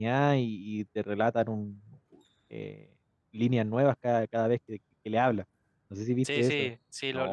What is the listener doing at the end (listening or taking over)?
taking over